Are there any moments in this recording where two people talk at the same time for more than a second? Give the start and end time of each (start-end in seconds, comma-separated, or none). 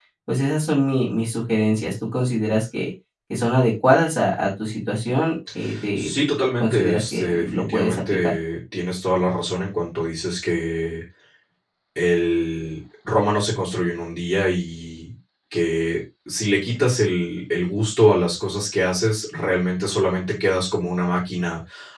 6.6-8.3